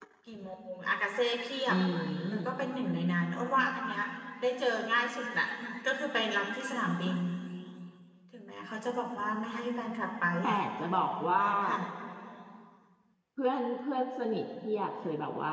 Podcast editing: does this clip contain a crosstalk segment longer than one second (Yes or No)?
No